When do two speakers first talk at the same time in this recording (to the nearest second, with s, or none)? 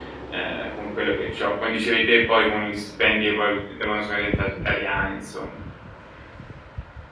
none